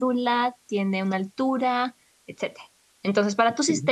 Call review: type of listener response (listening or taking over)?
listening